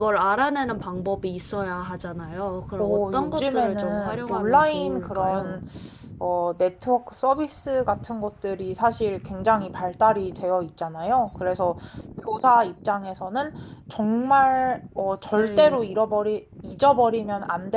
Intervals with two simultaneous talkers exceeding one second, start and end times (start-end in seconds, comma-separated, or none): 2.8-5.6